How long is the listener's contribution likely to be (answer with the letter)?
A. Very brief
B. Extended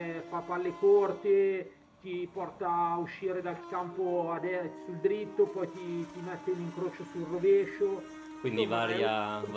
B